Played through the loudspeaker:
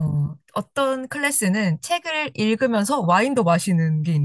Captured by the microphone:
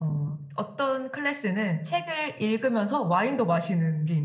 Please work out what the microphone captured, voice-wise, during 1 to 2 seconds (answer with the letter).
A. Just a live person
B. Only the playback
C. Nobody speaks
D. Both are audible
B